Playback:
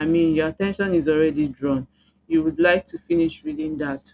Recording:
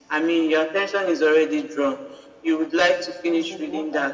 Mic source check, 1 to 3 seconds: echo only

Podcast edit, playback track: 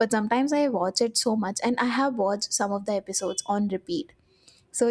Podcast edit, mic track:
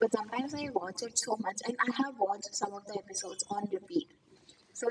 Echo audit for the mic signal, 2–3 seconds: echo only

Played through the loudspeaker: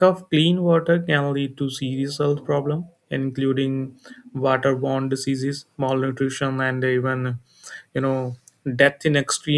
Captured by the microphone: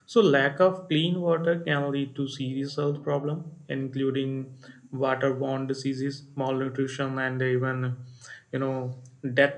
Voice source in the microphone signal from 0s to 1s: echo only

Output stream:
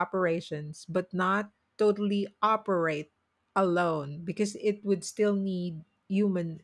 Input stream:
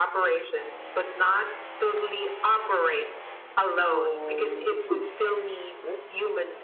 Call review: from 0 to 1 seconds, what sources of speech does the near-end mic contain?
echo only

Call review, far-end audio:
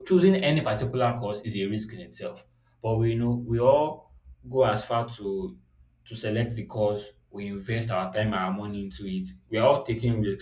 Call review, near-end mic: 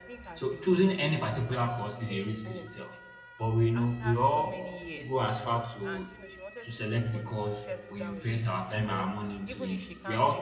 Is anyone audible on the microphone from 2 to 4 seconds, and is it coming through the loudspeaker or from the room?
both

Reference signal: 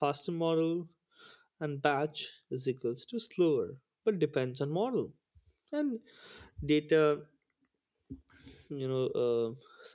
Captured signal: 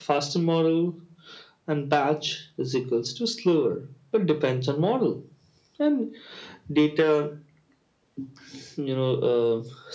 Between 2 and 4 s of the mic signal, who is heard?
echo only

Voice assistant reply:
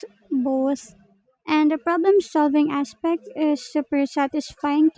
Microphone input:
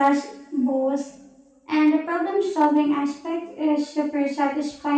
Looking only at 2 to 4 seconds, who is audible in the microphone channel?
echo only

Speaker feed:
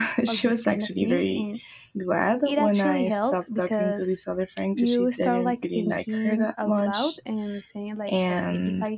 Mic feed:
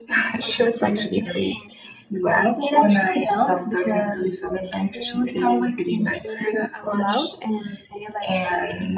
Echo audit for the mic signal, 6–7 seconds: echo only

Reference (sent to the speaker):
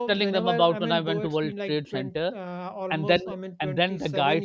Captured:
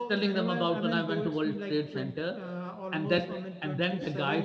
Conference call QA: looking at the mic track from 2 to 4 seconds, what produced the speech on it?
echo only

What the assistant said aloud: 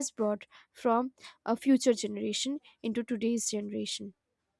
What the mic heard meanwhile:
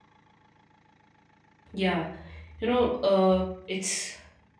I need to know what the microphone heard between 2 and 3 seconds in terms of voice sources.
user only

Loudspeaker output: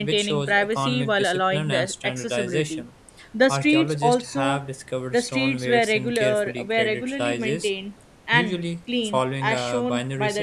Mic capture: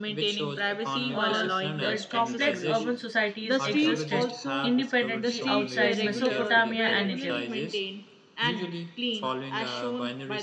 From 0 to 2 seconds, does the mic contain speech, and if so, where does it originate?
both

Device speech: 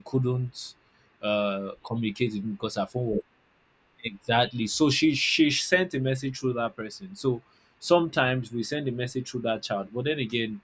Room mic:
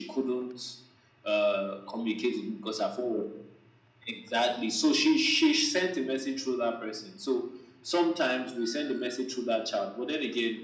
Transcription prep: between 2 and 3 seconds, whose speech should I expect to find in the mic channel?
echo only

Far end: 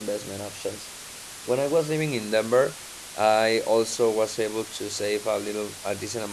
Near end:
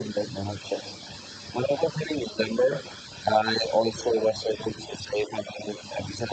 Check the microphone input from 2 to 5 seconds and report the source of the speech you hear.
echo only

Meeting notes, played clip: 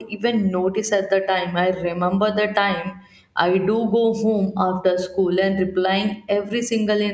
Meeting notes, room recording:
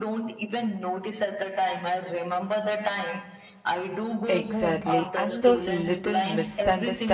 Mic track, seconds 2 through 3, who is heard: echo only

